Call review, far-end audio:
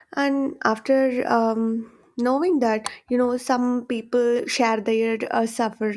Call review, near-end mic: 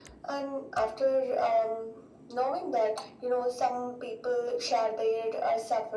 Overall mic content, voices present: echo only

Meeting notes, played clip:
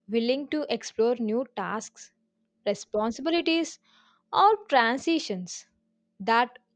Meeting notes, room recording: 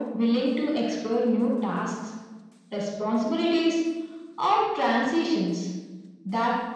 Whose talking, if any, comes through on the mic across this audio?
echo only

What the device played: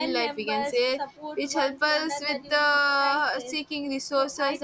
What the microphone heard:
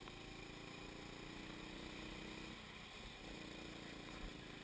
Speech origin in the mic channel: neither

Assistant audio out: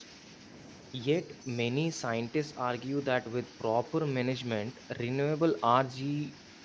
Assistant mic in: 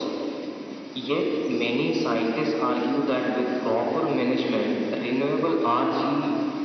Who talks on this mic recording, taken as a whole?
echo only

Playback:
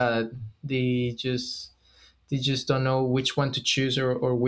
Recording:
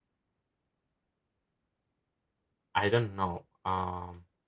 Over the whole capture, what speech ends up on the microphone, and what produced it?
user only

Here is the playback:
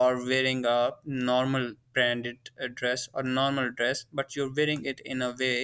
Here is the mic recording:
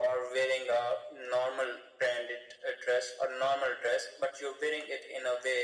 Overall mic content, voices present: echo only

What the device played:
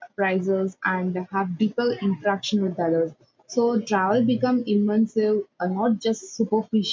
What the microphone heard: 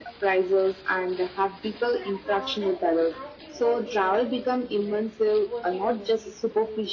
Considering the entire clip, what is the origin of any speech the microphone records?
both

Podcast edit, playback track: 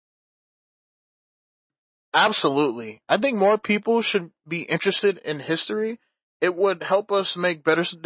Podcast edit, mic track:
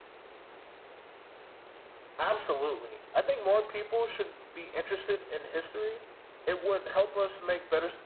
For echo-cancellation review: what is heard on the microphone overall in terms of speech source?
echo only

